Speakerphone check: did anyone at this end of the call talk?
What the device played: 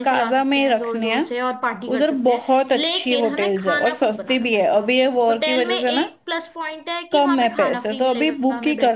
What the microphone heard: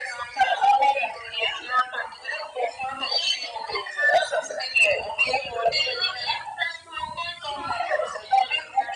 No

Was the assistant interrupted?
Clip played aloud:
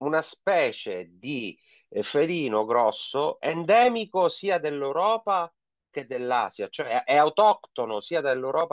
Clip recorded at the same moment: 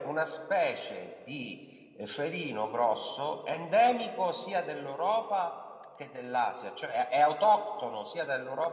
No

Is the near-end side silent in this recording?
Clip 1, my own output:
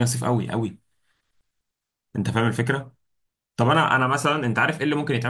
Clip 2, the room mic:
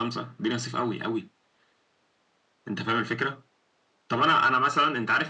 Yes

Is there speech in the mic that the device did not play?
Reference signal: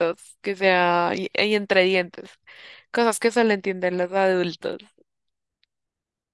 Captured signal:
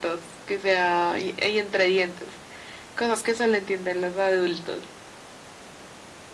No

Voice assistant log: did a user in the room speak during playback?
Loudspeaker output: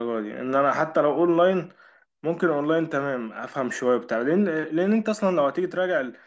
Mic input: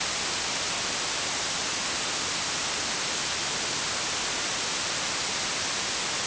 No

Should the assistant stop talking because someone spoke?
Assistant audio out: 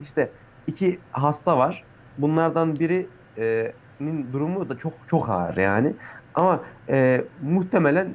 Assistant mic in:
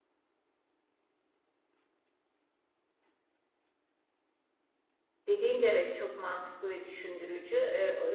Yes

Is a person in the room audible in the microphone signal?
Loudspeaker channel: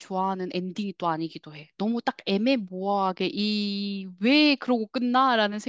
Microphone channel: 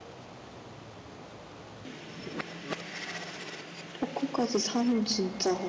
Yes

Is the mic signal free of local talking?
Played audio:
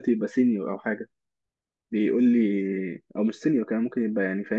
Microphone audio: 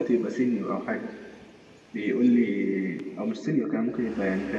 Yes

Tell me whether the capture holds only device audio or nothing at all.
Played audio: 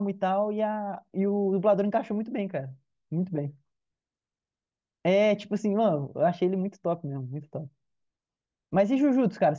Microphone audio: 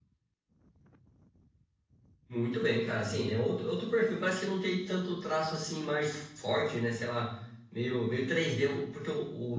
No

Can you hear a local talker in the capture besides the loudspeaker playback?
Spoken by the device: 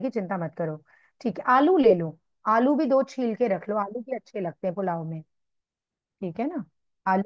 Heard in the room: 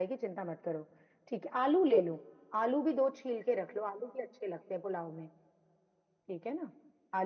No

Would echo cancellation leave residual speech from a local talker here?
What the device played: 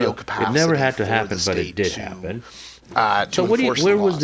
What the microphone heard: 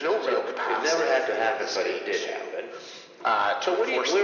No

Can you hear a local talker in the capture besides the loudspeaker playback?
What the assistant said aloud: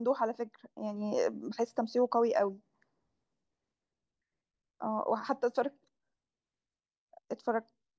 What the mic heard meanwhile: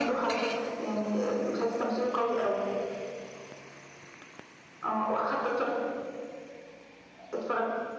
No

